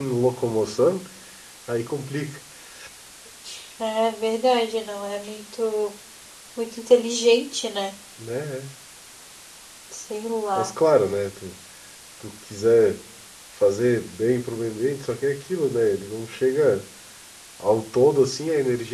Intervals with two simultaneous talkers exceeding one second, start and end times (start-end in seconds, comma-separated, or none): none